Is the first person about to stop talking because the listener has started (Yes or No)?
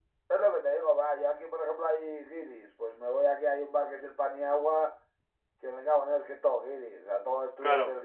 No